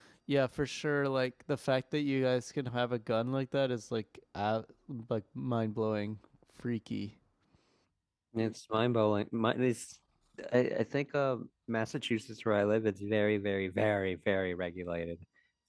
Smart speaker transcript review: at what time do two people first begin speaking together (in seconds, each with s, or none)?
none